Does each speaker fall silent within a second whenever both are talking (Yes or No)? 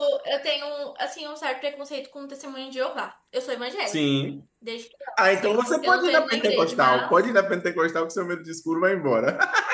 No